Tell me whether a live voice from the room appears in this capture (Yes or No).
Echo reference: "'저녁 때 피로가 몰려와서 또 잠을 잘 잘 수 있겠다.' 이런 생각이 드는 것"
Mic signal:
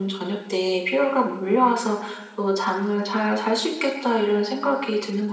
No